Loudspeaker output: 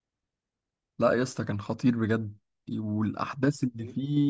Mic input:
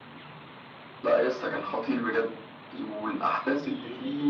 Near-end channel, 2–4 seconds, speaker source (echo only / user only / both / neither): echo only